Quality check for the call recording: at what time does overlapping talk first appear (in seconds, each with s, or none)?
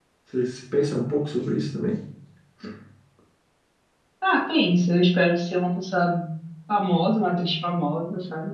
none